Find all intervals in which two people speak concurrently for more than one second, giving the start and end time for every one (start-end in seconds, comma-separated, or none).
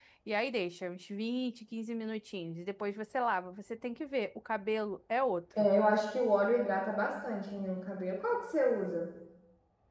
none